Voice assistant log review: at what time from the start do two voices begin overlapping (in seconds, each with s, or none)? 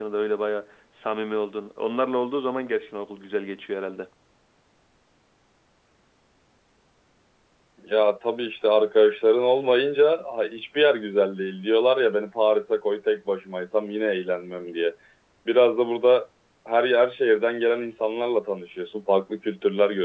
none